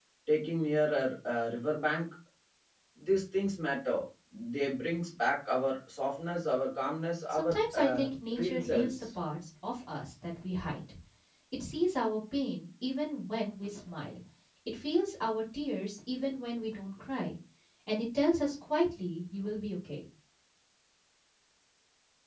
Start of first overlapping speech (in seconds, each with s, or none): 7.3 s